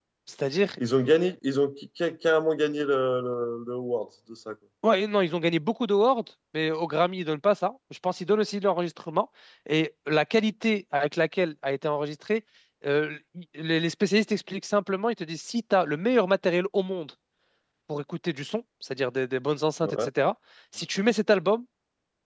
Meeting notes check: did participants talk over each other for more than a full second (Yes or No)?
No